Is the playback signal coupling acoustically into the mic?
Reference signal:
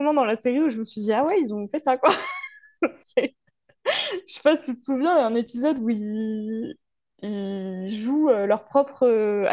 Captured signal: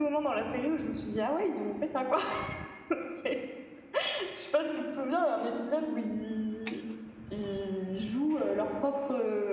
Yes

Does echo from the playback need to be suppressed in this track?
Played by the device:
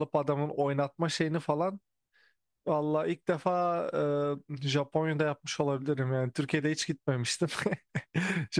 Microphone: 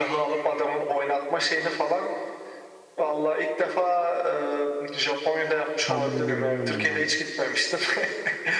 Yes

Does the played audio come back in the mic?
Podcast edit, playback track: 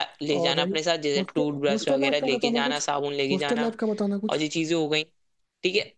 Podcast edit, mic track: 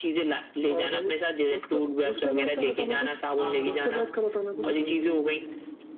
Yes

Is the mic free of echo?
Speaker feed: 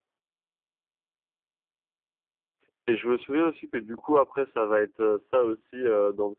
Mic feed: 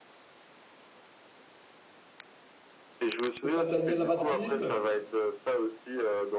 No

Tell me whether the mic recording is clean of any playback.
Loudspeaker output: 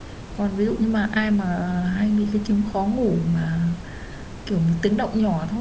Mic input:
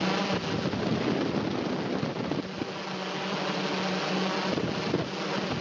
Yes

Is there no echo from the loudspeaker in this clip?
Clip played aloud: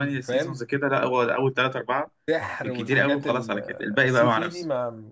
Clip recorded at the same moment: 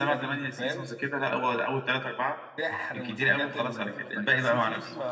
No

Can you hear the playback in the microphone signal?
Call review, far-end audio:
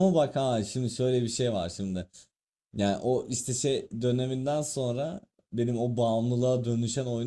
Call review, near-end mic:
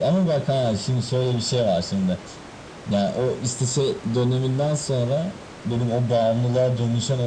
Yes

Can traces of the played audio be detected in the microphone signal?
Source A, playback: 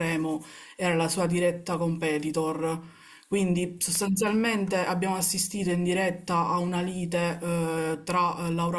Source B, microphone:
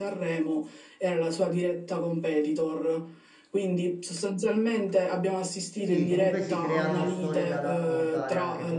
Yes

